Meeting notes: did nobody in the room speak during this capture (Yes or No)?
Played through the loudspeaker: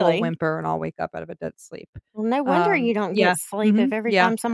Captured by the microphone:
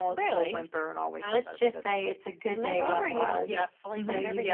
No